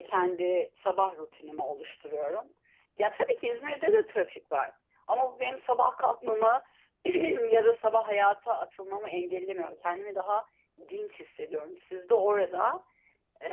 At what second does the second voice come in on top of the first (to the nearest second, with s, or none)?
none